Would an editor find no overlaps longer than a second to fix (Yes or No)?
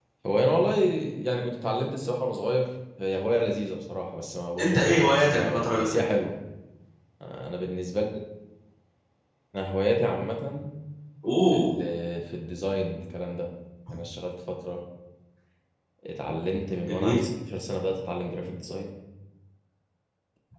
No